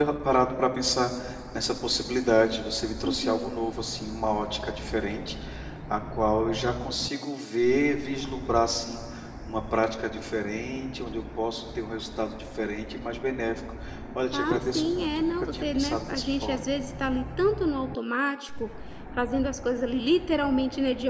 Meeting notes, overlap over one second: present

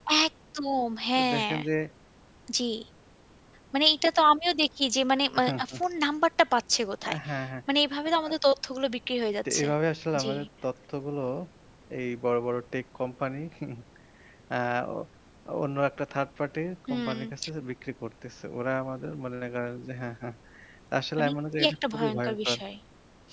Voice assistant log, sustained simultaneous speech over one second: present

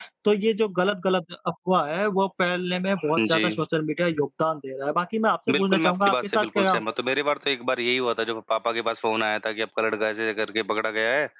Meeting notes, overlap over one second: present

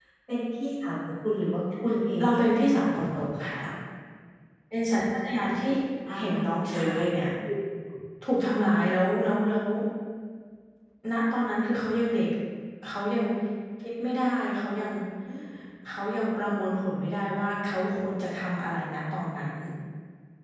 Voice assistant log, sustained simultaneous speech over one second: present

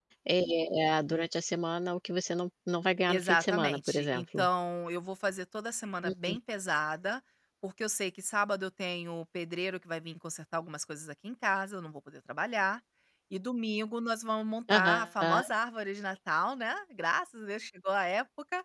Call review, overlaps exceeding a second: present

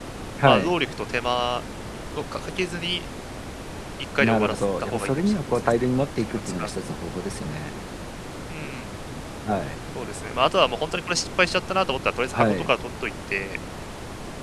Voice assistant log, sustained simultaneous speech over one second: present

